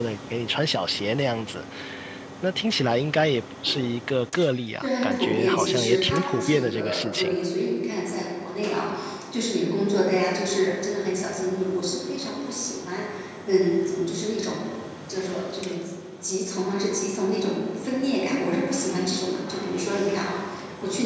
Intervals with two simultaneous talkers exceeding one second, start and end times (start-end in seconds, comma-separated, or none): 4.8-7.3